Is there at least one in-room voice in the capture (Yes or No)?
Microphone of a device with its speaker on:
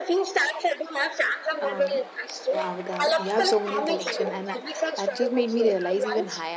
Yes